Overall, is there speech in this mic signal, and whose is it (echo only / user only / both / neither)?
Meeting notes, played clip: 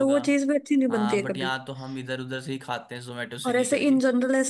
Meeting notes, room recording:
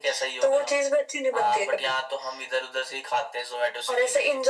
echo only